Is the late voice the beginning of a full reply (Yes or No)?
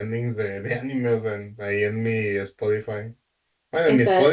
No